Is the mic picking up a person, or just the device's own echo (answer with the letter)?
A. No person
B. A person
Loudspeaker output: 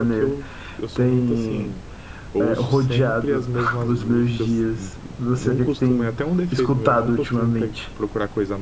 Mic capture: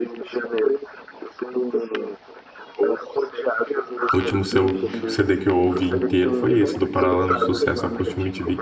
B